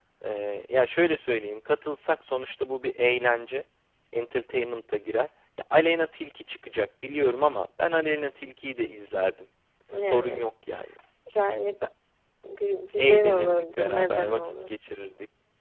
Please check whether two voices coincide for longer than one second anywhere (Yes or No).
Yes